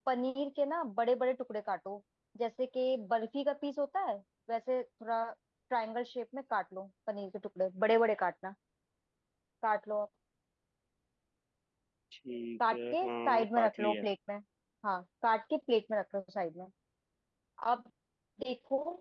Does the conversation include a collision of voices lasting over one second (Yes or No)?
Yes